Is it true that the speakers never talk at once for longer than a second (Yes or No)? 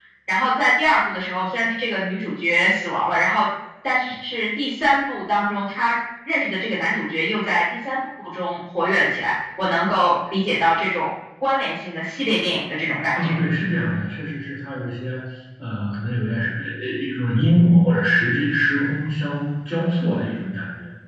Yes